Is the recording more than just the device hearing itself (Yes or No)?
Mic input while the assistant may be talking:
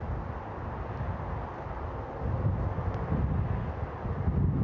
No